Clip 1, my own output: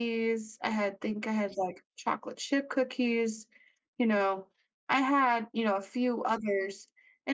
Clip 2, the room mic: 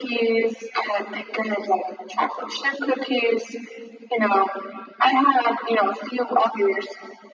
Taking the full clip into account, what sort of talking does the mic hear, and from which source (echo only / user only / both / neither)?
echo only